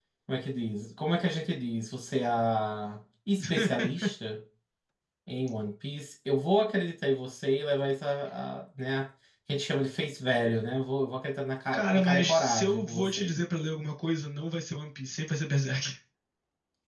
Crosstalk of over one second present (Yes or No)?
Yes